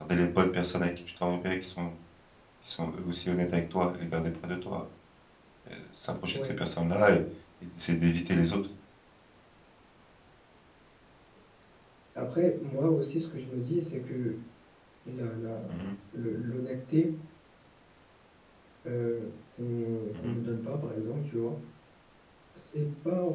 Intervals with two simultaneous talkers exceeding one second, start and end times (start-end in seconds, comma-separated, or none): none